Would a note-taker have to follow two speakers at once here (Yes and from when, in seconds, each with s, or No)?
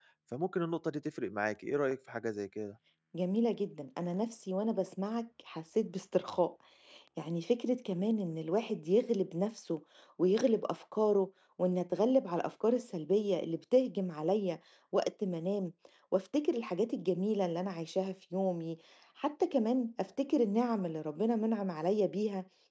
No